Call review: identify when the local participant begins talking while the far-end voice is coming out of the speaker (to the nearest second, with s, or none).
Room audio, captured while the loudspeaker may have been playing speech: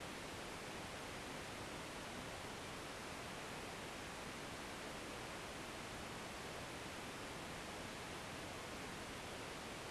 none